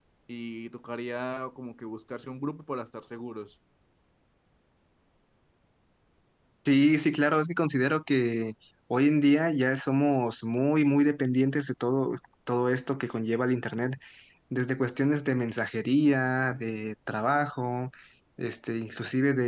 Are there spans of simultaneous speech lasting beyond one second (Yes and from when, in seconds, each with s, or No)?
No